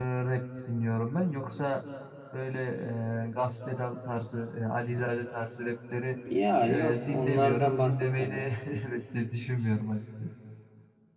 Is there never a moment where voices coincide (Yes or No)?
No